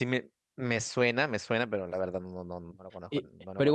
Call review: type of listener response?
taking over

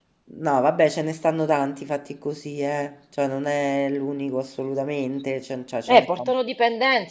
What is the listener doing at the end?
taking over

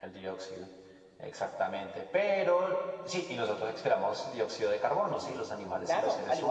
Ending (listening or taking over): taking over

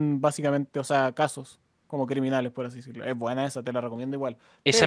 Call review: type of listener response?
taking over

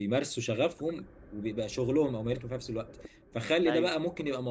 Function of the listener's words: listening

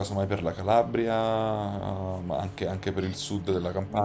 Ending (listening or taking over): taking over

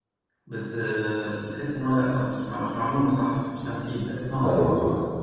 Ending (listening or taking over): taking over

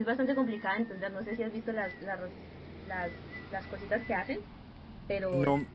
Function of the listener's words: taking over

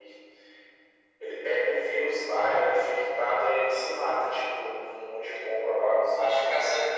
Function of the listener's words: taking over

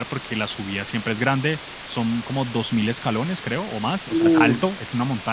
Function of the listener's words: listening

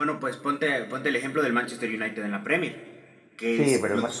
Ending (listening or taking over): taking over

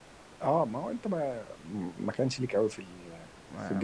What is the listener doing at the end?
taking over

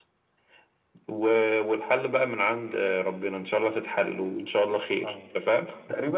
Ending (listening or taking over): taking over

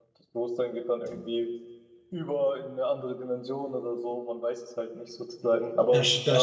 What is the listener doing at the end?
taking over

